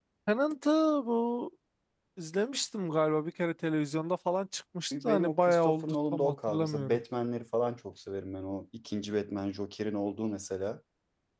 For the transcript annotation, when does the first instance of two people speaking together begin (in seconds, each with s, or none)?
4.9 s